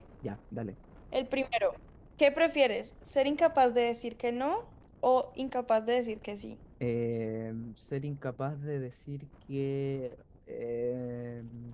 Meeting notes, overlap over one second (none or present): none